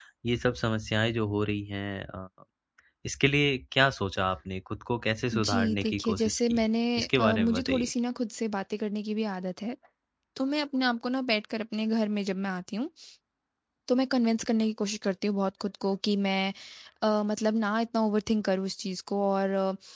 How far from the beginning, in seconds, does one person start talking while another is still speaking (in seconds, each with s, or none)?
5.3 s